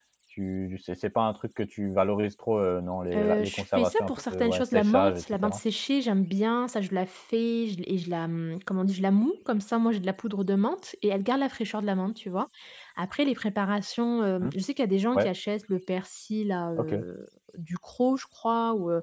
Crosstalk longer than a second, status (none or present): present